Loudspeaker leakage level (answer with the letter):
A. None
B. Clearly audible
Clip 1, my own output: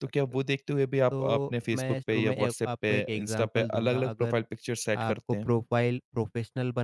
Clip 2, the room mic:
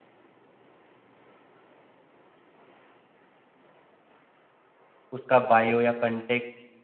A